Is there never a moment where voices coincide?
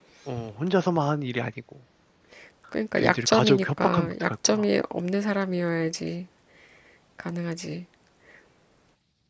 No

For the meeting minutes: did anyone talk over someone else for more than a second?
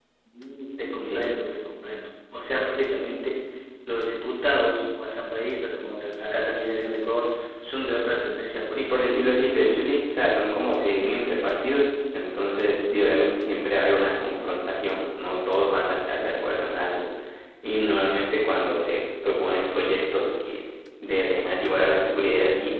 No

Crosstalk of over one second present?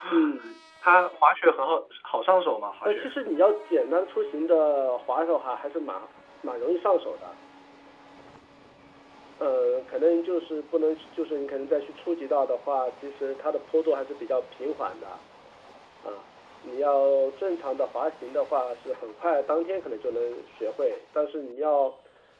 No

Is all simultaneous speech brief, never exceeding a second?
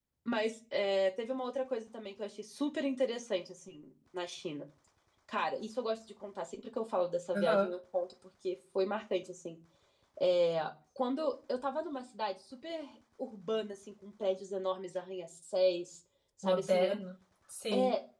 Yes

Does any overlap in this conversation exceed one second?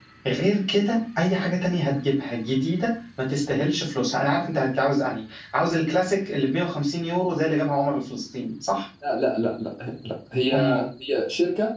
No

